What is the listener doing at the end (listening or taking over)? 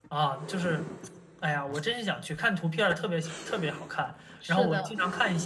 listening